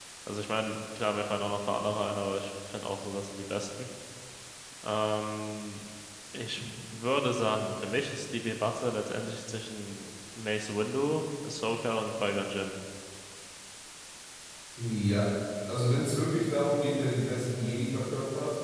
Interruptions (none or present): none